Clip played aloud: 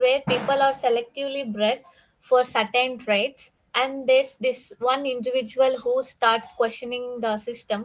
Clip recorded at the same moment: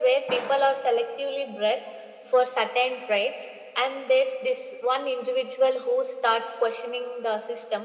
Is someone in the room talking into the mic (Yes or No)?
No